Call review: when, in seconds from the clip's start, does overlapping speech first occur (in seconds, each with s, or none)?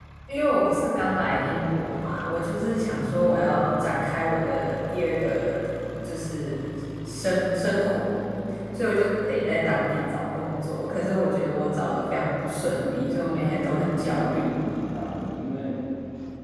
12.7 s